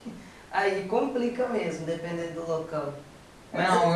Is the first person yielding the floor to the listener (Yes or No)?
Yes